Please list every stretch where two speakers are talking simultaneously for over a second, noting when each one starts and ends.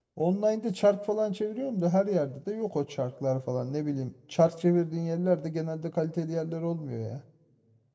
none

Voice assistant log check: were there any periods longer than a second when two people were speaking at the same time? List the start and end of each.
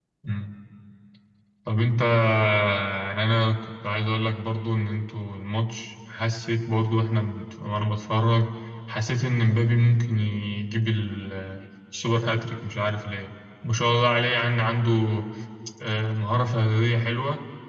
none

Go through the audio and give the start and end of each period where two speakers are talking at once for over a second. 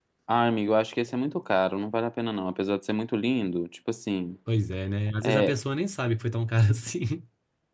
none

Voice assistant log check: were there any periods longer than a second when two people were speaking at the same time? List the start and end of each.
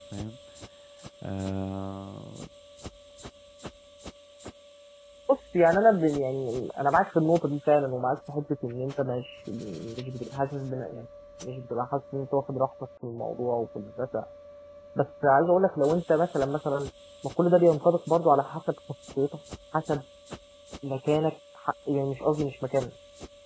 none

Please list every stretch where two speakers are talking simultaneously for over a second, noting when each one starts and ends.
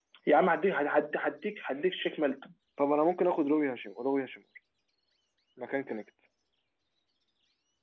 none

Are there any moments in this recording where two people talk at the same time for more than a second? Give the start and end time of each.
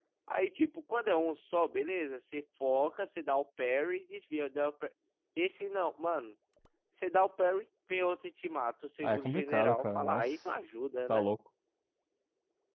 9.0-10.3

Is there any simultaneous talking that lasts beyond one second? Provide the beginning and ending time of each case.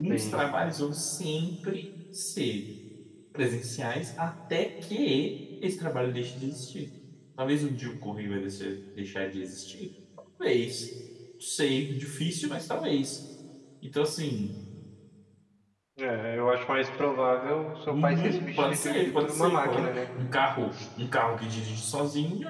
17.9-20.1

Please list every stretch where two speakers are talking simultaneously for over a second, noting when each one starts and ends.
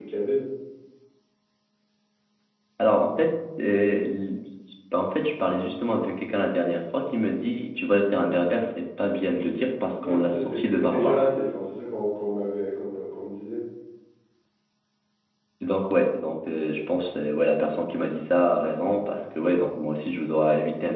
10.0-11.2

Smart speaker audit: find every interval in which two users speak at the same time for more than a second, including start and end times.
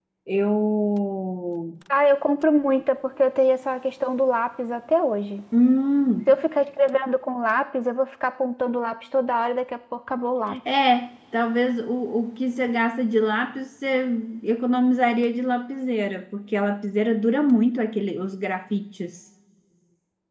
none

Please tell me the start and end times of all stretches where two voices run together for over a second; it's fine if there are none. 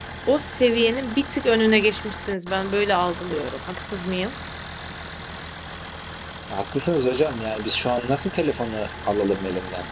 none

